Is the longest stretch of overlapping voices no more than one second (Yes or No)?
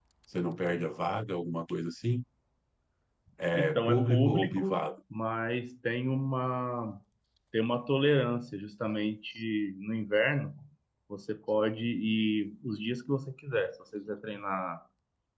No